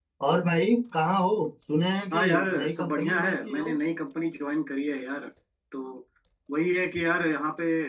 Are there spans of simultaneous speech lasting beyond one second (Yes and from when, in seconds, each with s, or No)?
Yes, from 2.1 s